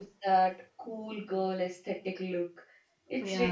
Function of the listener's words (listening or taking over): listening